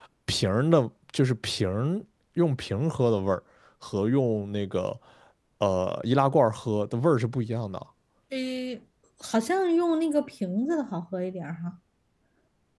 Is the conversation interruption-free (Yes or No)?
Yes